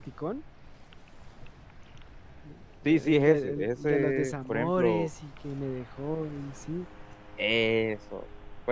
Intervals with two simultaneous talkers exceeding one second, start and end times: 2.8-5.1

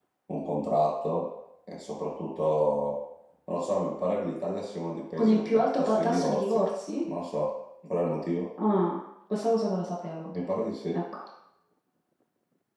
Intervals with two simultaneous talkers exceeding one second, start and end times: 5.2-6.6

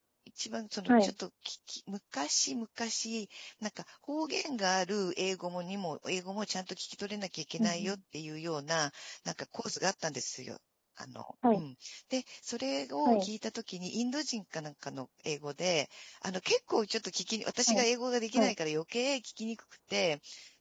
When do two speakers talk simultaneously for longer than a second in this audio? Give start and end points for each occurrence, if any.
none

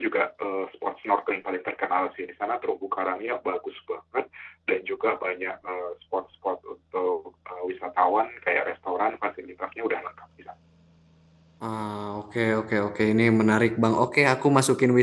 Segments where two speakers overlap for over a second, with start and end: none

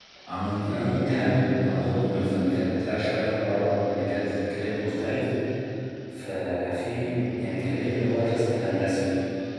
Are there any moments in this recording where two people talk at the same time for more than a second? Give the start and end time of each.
0.7-2.7

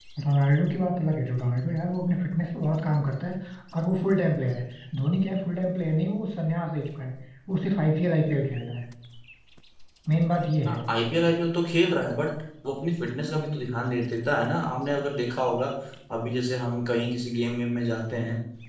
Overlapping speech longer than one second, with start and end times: none

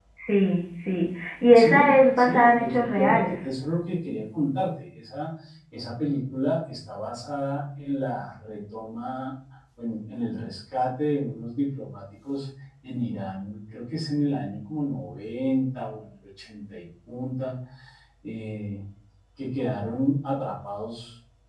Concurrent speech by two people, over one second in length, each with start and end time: 1.6-3.4

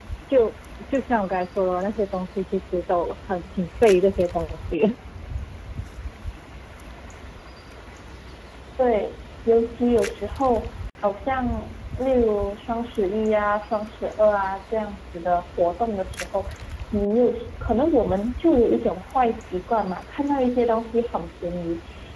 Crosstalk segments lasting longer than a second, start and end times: none

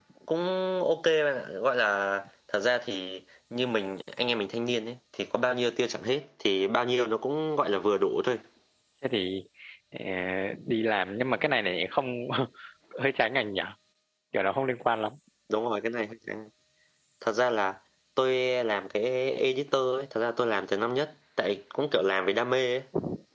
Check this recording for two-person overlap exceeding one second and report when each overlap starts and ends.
none

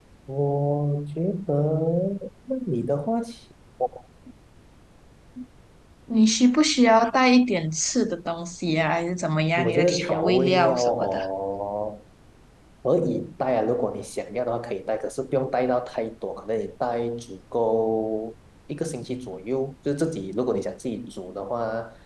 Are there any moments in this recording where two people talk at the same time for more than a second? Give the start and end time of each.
9.6-11.2

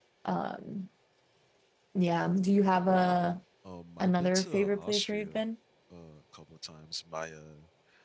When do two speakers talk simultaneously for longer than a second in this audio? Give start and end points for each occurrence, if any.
4.0-5.4

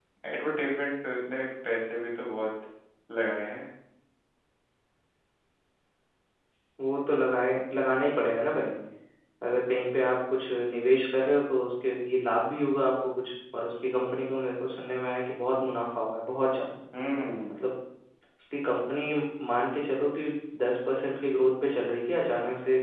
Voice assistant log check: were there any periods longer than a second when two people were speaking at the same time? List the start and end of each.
none

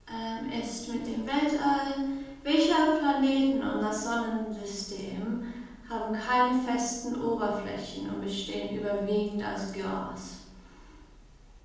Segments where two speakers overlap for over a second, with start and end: none

